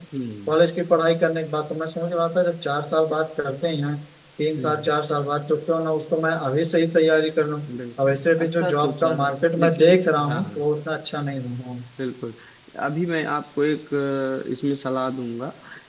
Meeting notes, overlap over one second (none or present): present